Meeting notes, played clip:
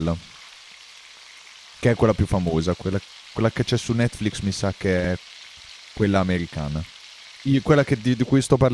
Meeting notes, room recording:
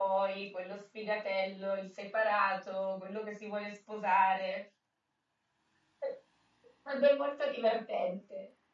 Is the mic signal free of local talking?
No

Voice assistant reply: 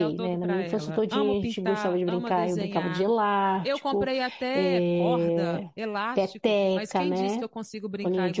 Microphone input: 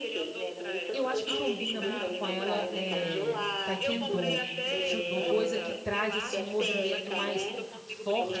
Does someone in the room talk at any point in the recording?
Yes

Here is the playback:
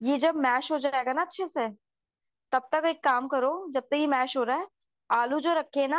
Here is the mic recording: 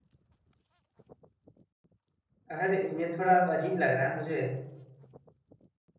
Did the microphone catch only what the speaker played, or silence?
No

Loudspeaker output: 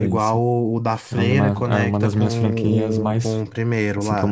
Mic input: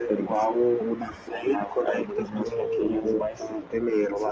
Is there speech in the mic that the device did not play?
No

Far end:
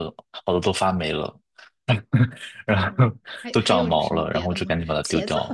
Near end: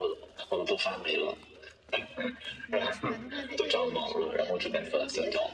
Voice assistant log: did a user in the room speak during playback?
Yes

